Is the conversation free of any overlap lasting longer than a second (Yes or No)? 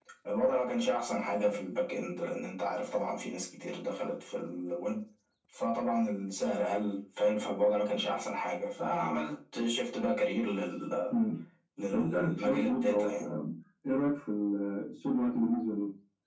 No